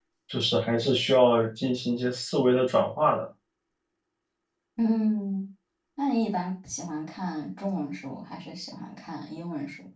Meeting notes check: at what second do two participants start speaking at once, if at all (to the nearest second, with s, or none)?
none